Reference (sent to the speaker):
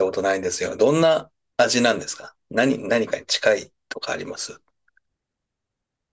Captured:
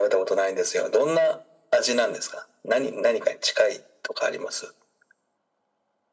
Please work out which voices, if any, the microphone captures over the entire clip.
echo only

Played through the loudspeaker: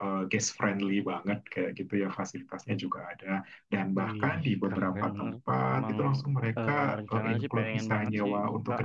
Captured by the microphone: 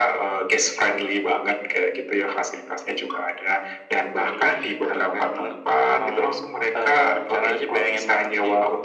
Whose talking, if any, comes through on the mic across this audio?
echo only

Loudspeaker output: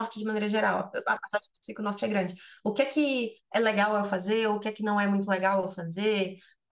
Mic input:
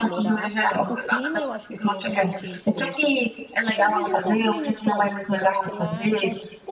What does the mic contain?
both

